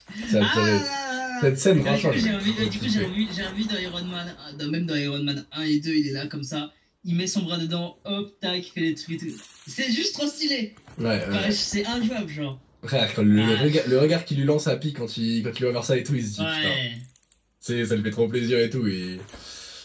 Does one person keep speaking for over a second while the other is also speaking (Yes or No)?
Yes